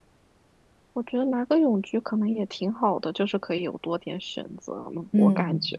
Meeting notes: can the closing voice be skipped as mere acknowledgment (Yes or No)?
No